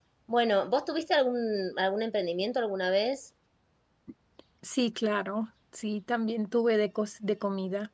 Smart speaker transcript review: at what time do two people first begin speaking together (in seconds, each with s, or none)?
none